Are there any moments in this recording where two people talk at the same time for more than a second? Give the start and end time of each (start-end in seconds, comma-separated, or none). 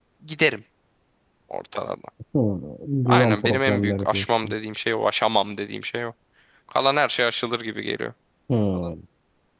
3.1-4.5